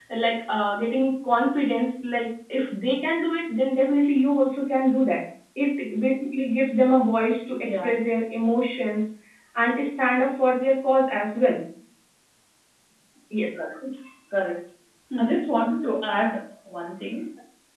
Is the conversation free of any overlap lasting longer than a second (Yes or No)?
Yes